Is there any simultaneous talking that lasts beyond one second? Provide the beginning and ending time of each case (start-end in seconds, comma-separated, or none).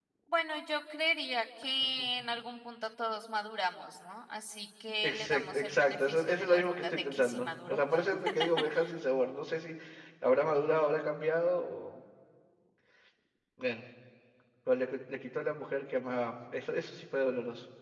5.0-7.8